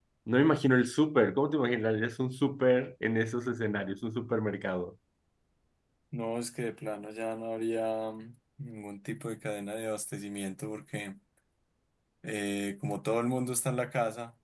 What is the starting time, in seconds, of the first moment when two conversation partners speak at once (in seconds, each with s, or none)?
none